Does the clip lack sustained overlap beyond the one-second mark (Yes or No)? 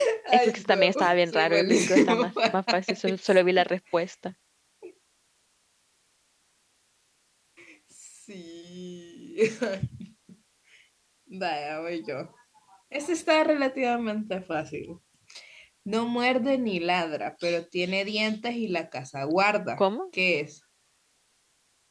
No